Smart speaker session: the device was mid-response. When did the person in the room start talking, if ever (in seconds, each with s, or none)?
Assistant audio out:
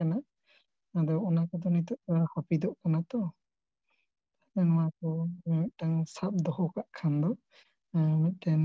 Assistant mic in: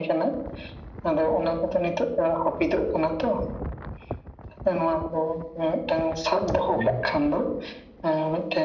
6.7 s